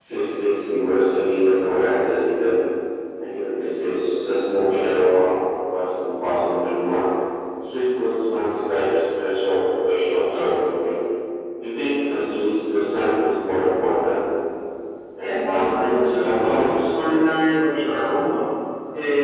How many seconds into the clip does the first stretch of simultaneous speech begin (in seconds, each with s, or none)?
15.2 s